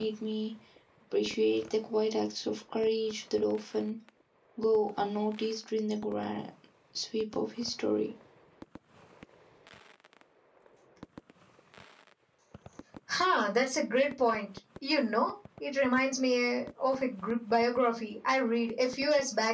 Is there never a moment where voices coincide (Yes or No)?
Yes